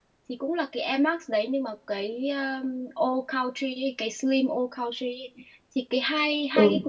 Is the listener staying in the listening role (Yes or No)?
Yes